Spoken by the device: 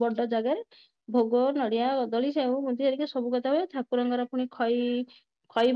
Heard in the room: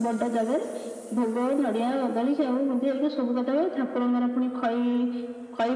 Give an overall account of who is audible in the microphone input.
echo only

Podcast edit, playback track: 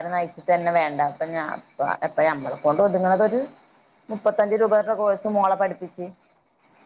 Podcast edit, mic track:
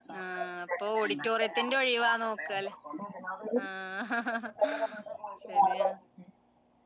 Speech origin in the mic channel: both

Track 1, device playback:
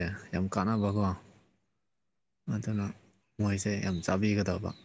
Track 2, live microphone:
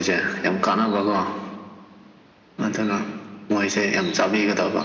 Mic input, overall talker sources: both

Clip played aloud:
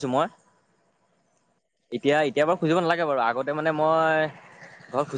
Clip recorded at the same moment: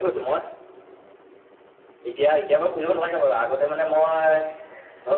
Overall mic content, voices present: echo only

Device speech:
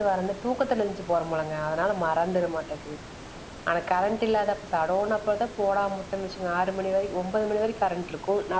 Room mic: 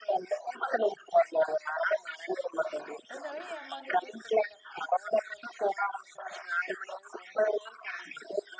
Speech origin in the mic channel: both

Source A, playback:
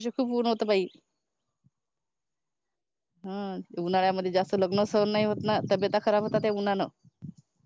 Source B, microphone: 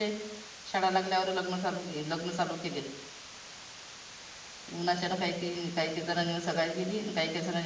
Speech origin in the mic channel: user only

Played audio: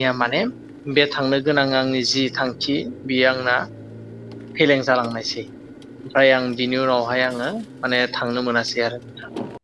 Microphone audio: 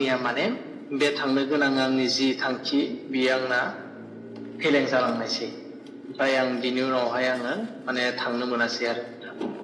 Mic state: echo only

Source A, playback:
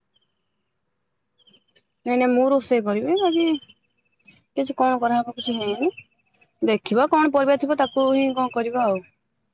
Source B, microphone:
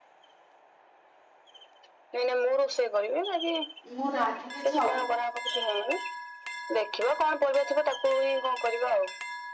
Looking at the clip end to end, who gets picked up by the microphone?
both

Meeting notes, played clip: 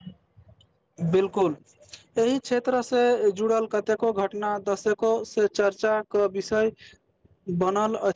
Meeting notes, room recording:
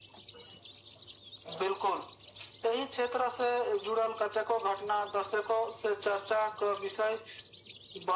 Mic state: echo only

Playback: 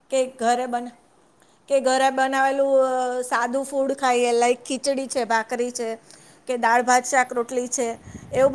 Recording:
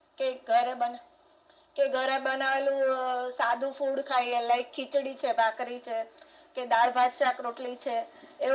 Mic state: echo only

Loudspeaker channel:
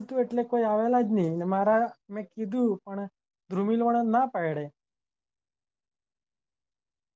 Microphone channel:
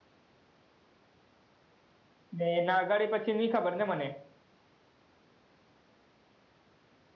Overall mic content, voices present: user only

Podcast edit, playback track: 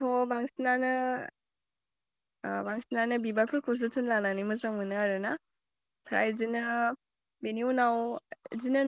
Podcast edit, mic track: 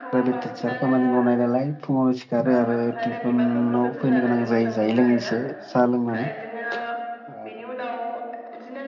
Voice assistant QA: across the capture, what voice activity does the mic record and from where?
both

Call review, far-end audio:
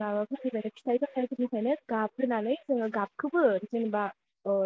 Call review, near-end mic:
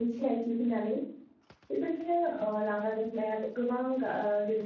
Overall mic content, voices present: user only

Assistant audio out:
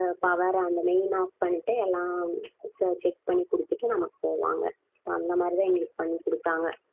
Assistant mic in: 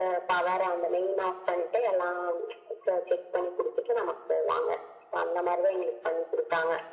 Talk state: echo only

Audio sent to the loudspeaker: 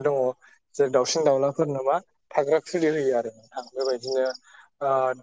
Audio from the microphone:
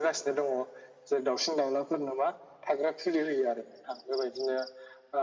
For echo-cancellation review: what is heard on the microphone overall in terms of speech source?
echo only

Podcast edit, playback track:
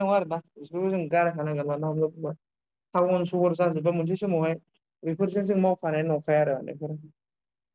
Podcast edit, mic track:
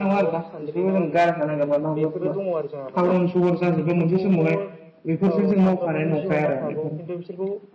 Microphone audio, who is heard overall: both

